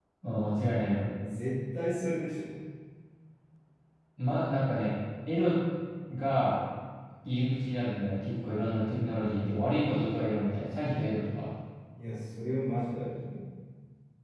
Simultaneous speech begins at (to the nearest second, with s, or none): none